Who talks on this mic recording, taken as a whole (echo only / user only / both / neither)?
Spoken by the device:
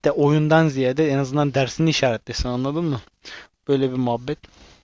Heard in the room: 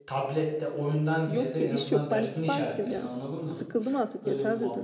both